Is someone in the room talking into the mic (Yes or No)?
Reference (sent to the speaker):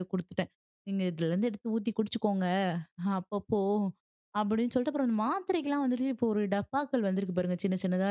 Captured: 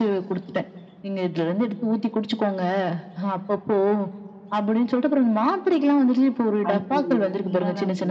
Yes